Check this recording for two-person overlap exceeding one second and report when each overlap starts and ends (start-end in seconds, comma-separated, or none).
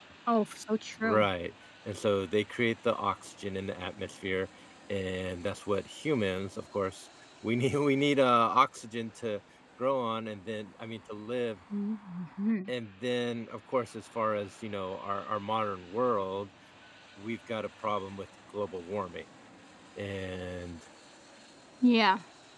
none